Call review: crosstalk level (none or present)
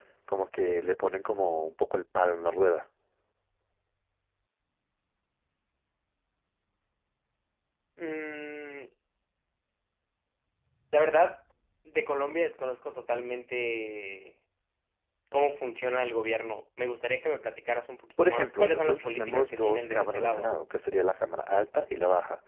present